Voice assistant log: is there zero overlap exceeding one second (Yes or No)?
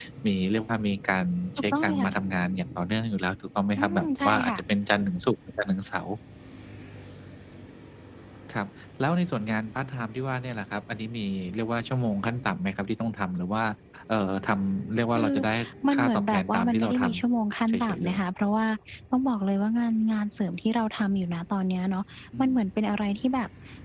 No